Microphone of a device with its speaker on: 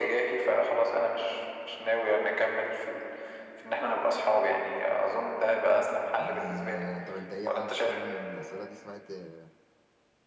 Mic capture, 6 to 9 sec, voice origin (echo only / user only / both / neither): both